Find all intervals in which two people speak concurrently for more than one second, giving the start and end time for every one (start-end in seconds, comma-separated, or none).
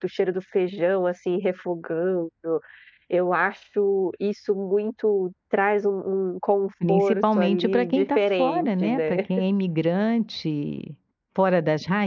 6.9-9.2